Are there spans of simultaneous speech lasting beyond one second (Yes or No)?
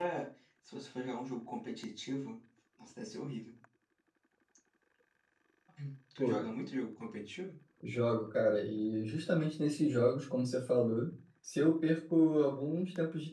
No